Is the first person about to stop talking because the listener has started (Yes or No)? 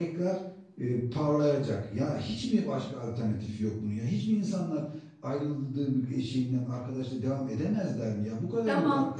Yes